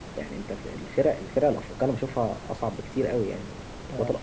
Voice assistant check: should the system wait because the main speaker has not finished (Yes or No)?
Yes